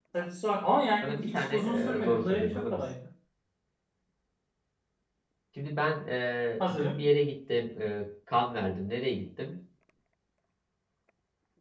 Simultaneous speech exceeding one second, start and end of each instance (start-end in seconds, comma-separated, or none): 1.0-2.8